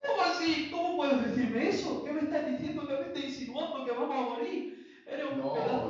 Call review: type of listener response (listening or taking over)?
taking over